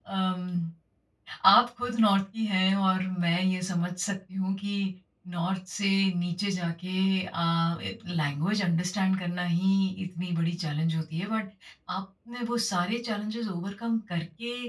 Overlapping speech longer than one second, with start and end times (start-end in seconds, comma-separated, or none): none